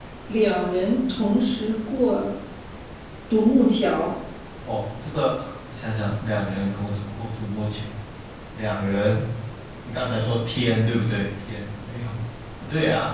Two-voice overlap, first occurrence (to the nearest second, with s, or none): none